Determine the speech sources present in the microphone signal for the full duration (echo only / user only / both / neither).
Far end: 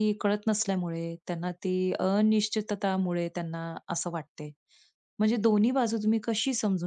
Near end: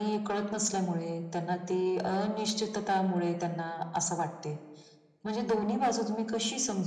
echo only